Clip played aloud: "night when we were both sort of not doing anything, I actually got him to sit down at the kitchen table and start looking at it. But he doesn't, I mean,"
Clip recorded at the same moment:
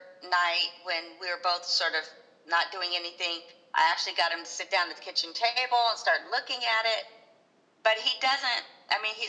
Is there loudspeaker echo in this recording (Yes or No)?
Yes